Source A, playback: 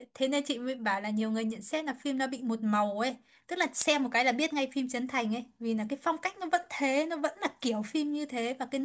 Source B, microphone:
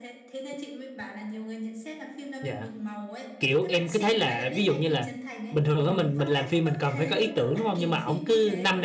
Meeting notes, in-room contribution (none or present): present